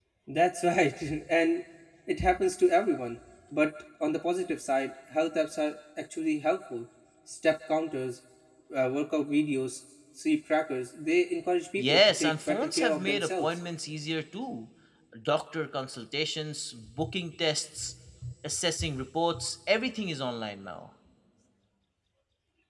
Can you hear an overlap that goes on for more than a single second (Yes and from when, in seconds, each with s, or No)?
Yes, from 11.8 s